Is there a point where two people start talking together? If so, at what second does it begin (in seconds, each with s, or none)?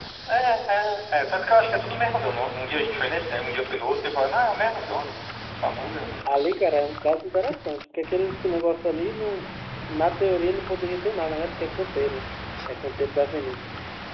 none